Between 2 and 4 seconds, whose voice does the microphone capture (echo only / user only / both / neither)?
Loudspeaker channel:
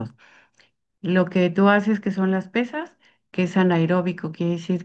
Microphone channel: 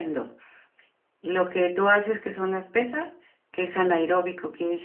echo only